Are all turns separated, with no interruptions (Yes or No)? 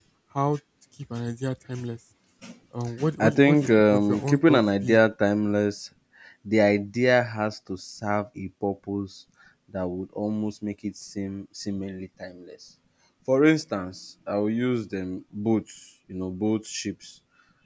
No